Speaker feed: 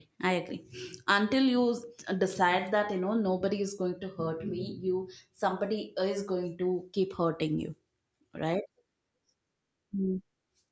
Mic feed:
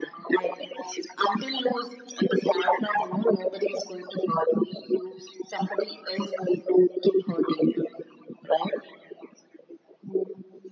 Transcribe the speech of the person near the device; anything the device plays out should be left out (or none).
none